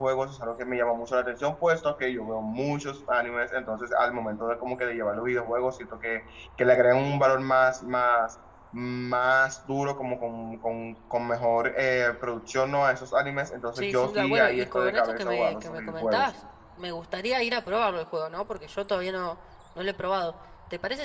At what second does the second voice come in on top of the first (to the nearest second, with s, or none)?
14 s